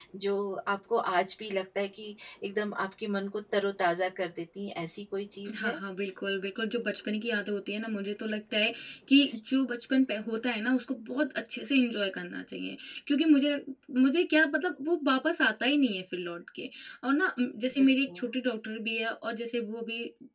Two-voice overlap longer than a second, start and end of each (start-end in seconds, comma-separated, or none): none